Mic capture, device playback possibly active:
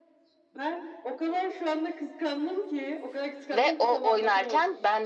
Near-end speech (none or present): present